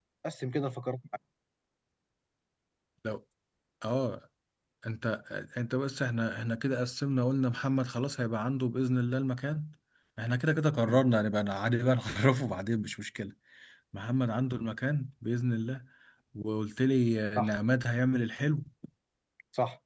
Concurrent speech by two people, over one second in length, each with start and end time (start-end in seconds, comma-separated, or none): none